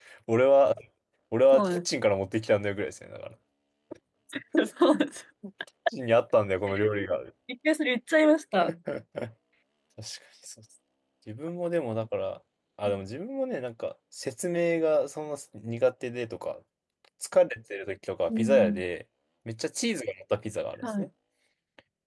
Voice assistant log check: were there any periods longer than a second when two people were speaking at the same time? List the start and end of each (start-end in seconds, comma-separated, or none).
none